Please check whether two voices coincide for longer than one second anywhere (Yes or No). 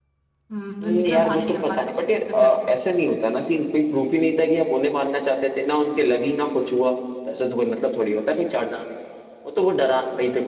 Yes